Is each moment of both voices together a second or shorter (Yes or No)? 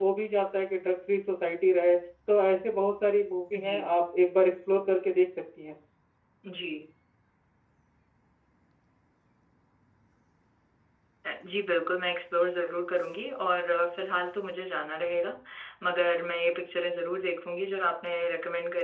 Yes